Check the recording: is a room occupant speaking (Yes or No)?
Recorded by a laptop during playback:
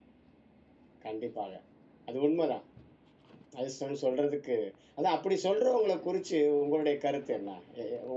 Yes